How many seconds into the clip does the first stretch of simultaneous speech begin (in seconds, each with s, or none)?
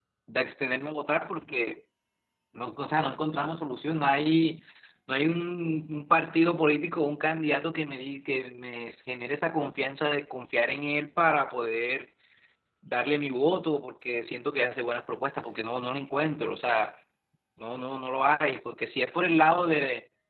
none